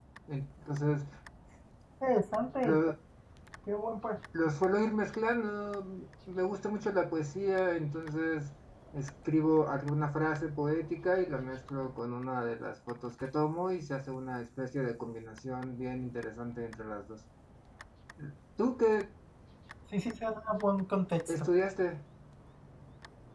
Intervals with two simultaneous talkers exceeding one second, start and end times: none

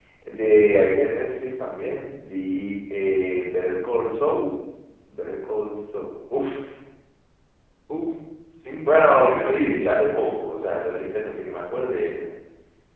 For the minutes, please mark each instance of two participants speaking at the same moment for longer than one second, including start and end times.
8.8-10.1

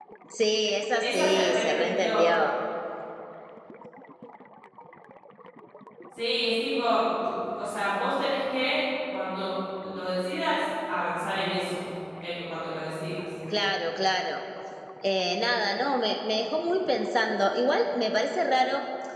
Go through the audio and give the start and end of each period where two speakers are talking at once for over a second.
1.0-2.3

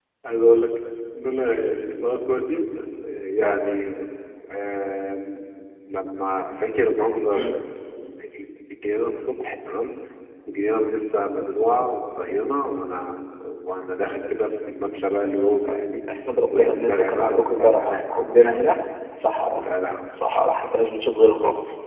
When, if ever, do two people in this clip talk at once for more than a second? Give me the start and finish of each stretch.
16.5-18.8

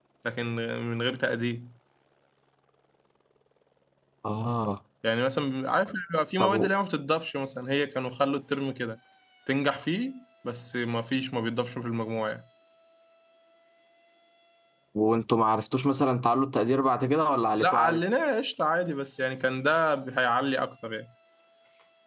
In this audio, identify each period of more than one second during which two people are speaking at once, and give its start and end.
none

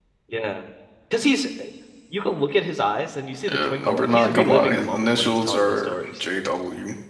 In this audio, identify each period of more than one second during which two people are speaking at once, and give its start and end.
3.5-6.2

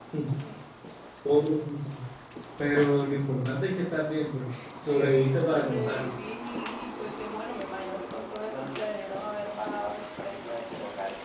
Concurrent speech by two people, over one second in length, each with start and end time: 4.8-6.1

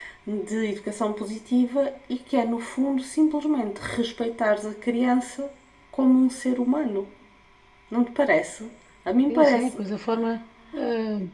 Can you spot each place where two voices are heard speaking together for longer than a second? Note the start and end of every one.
none

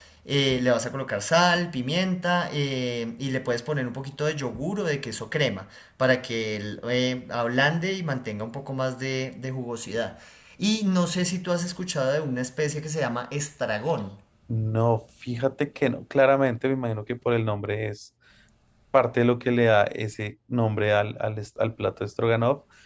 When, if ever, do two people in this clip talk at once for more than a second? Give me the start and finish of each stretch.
none

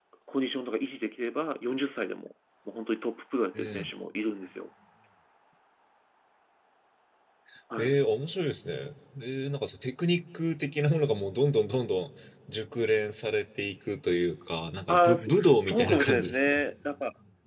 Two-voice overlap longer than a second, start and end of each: 14.9-16.6

